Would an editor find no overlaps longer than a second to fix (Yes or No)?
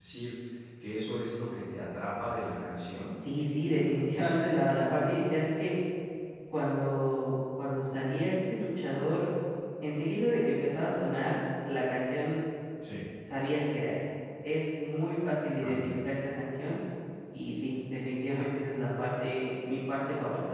Yes